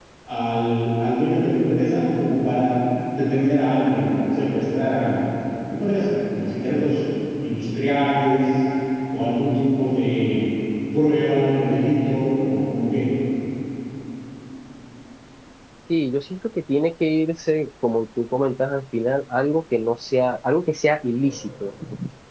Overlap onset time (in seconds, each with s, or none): none